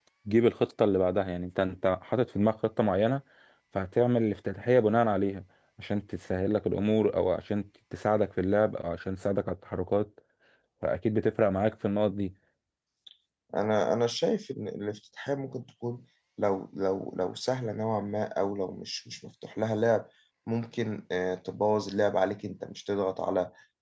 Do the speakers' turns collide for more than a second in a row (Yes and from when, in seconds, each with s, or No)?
No